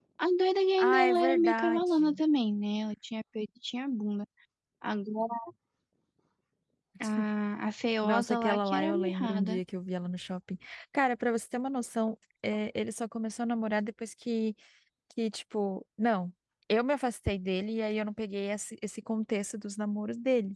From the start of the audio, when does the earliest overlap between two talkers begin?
0.8 s

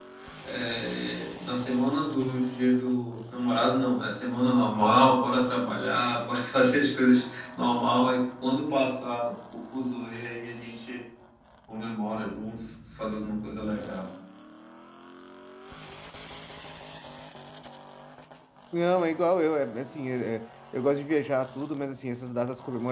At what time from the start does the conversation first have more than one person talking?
none

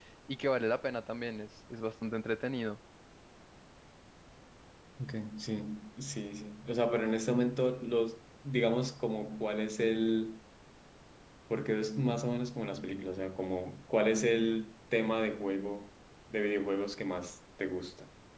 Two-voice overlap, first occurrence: none

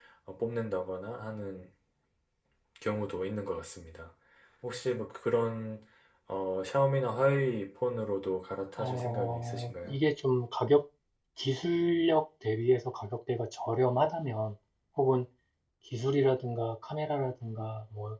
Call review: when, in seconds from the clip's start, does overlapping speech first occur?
8.8 s

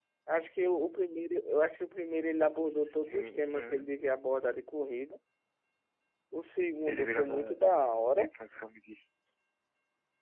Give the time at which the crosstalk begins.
2.6 s

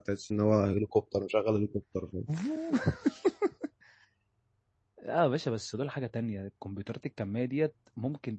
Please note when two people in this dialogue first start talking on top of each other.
none

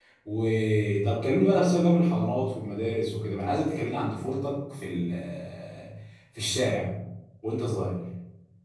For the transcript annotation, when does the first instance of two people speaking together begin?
none

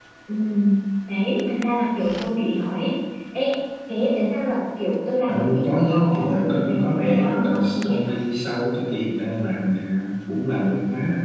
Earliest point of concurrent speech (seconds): 5.3 s

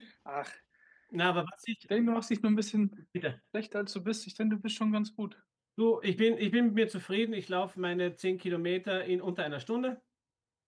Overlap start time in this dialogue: none

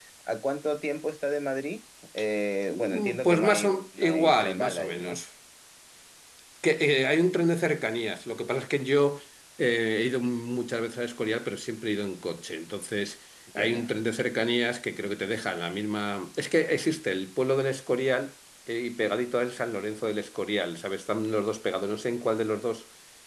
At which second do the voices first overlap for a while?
2.7 s

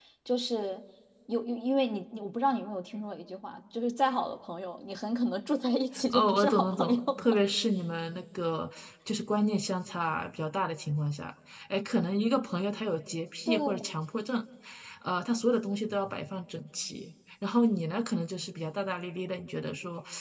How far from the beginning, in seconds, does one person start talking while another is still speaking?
6.1 s

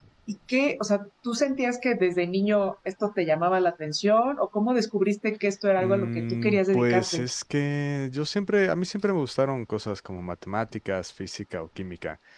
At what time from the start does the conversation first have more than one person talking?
5.8 s

